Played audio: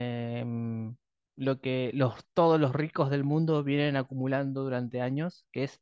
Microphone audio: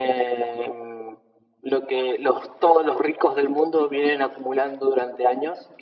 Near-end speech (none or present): none